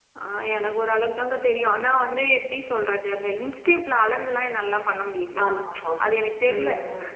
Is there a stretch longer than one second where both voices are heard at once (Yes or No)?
No